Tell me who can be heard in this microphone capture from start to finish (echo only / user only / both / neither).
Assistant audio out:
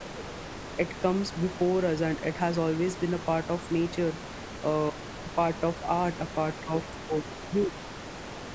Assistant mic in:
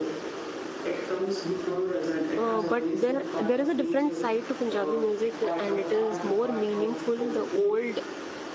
both